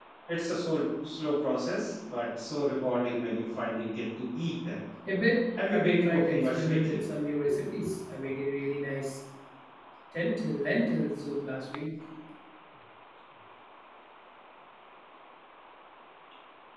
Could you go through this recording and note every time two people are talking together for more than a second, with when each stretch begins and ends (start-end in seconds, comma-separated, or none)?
5.6-7.0